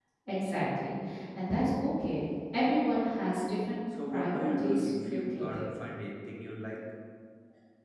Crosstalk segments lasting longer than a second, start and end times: 4.1-5.7

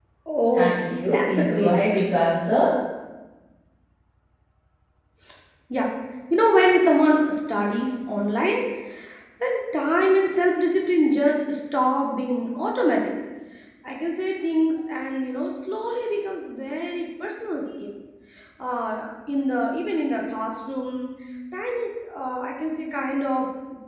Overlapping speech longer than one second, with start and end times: 0.5-2.1

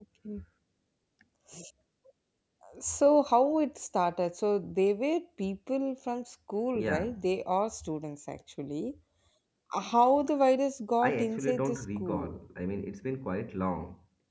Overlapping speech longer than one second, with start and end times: 11.0-12.3

